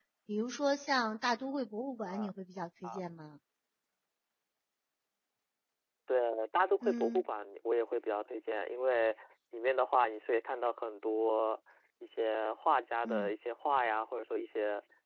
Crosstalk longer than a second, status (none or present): none